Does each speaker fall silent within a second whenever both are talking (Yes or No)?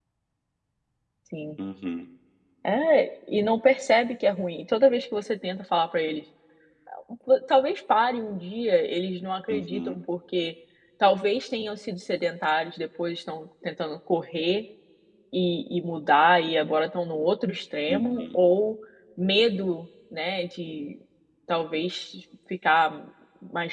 Yes